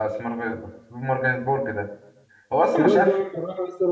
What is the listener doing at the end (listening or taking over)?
taking over